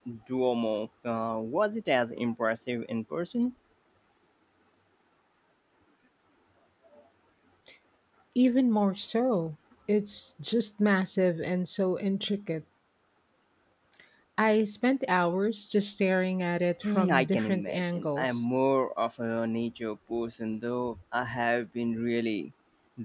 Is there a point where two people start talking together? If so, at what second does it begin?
16.8 s

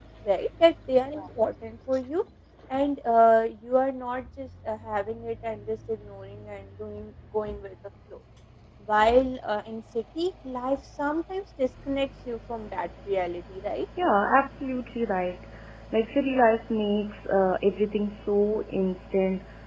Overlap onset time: none

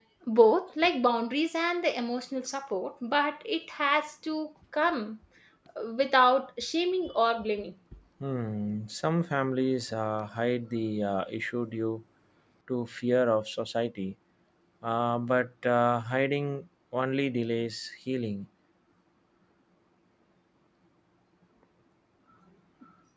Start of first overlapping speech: none

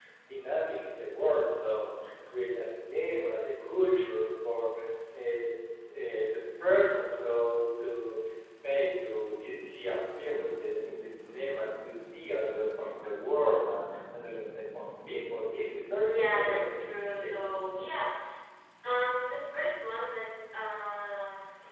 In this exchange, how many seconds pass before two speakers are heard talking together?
16.1 s

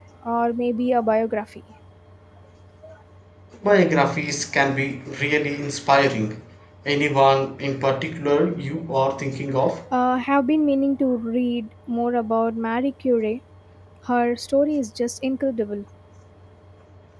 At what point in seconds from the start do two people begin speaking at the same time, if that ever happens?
none

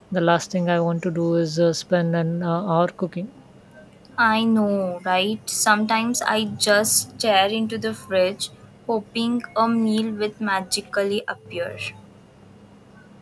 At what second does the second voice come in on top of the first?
none

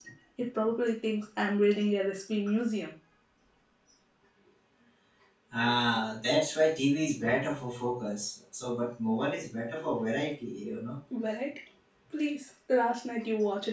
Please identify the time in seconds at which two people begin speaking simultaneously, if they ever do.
none

